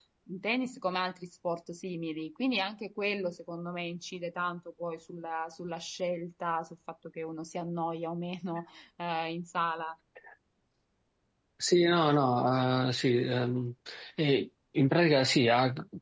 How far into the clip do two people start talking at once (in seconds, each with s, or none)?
none